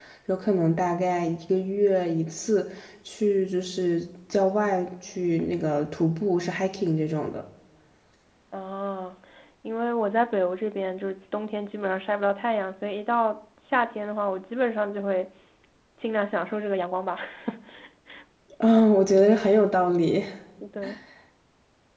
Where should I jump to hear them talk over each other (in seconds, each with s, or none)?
none